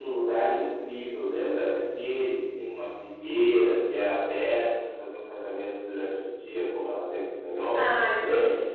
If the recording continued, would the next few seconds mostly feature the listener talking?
Yes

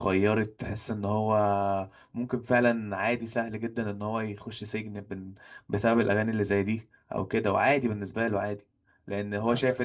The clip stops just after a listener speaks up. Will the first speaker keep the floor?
Yes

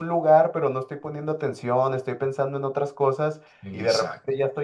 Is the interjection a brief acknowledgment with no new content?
Yes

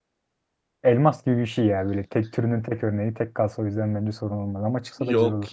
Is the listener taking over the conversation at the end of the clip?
Yes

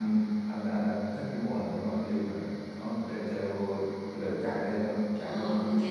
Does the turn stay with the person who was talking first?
No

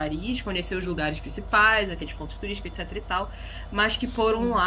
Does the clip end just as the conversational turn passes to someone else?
No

